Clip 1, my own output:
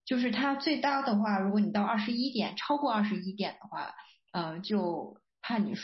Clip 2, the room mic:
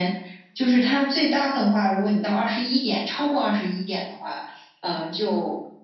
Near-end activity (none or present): none